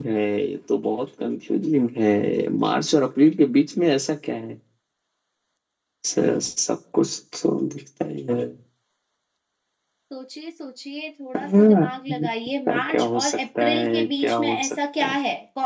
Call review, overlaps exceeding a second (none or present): present